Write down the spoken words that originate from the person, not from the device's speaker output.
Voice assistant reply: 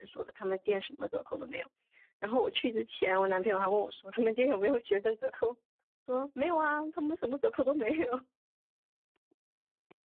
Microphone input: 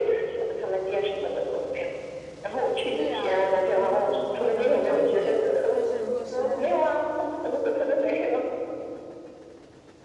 对呀，然后工资好像会涨一点，但是如果实在

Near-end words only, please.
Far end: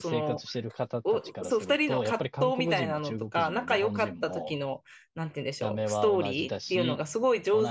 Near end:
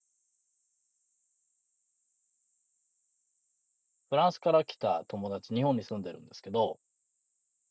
フランスから来た友達、日本に住んでるんですけど、

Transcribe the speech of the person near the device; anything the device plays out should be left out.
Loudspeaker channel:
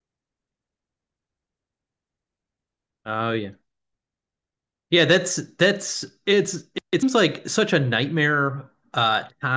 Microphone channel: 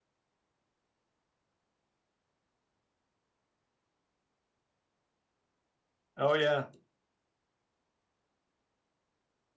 oh yeah,

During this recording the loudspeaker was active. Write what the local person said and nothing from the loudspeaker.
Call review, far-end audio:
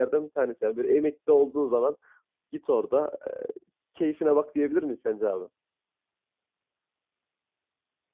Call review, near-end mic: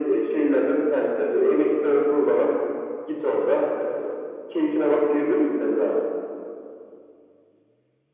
none

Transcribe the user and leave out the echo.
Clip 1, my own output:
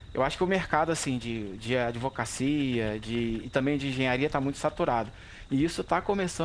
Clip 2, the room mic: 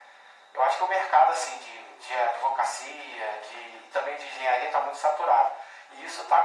none

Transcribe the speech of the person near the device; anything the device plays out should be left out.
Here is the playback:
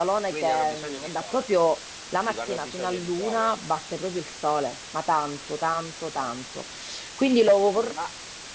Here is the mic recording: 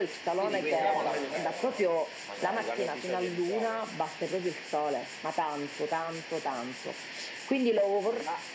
quindi chiamiamola Alfredo, no? Magari.

